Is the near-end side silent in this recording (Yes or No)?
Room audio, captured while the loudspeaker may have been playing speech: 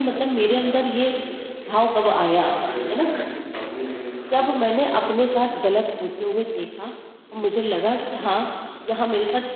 No